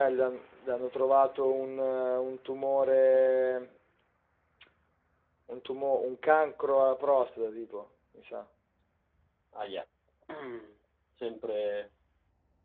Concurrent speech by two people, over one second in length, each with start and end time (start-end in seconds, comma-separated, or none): none